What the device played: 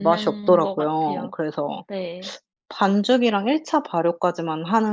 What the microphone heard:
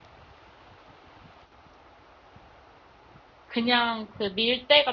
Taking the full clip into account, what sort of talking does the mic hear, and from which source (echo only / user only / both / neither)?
user only